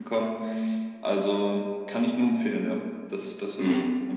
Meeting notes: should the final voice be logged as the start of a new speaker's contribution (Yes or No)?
Yes